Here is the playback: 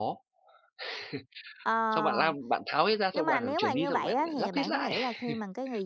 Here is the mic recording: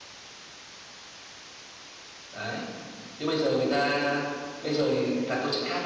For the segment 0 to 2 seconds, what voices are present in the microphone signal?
neither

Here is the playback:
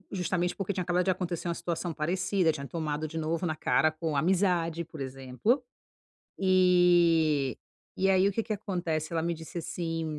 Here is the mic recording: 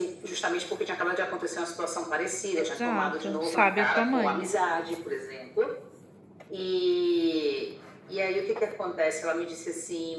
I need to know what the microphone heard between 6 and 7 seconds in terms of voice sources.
echo only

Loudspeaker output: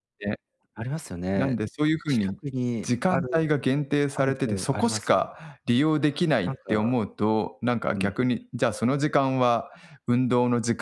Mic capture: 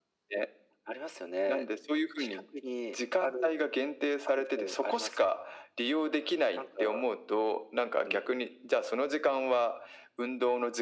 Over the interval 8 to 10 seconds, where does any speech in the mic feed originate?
echo only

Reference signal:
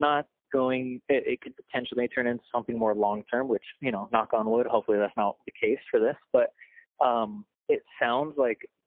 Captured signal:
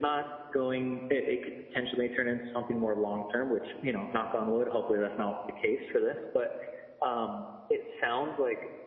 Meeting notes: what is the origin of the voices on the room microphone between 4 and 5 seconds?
echo only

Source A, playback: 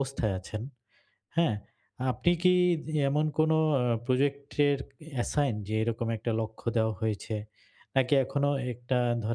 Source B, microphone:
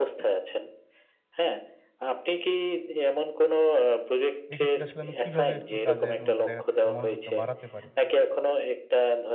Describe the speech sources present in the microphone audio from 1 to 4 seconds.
echo only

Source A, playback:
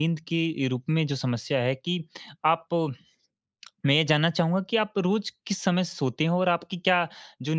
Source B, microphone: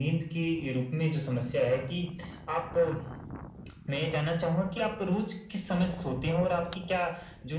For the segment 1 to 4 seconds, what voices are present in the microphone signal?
echo only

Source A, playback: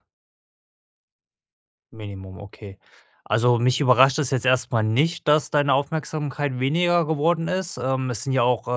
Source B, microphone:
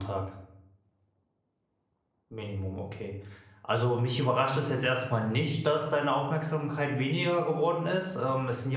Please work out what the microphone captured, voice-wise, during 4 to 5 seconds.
echo only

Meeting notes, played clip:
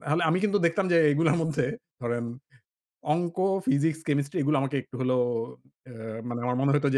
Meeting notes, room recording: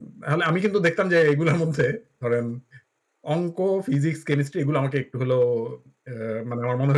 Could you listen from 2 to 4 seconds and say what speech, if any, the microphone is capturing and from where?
echo only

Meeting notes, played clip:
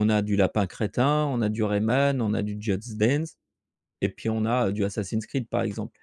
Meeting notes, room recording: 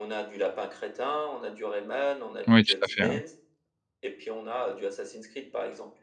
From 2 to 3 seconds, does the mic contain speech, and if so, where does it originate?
both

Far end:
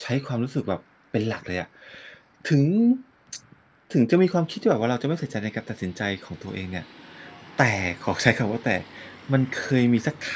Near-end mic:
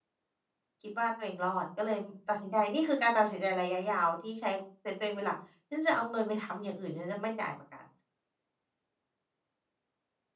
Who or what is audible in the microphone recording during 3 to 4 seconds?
user only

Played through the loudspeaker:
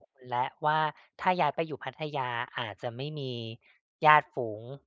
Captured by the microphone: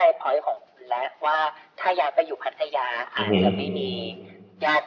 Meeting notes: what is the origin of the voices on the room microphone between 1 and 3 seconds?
echo only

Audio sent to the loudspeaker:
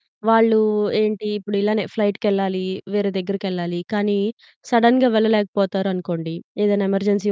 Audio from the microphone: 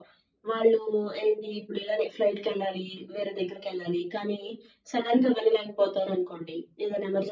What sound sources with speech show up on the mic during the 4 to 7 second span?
echo only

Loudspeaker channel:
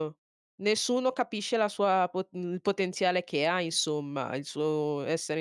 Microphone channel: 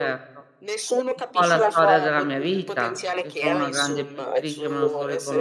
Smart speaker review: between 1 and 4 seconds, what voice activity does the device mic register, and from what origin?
both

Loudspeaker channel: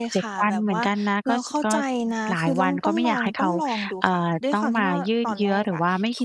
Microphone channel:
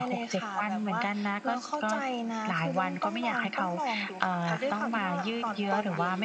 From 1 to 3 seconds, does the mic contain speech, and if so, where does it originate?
echo only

